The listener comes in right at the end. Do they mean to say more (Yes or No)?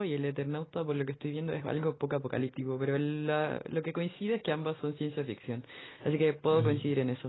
No